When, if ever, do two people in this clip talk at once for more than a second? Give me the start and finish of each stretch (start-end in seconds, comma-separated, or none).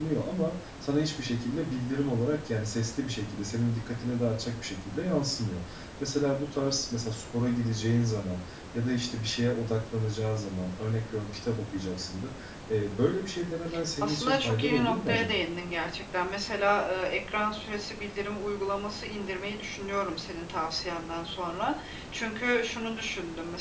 14.0-15.4